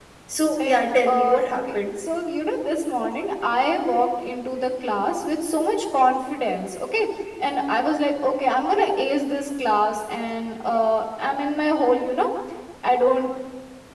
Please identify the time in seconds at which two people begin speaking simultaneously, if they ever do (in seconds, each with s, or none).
0.6 s